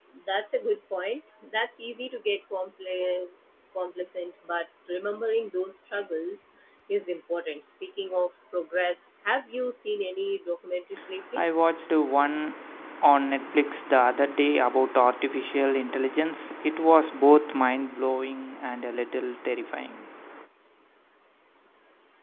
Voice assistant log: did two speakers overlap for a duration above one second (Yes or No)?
No